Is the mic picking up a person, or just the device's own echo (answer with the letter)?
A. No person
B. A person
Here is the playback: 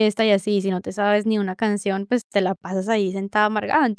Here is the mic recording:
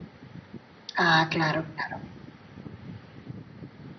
B